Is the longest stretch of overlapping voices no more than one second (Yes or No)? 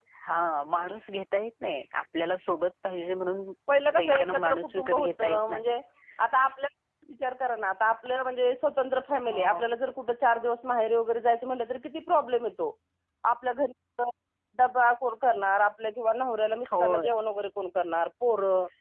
No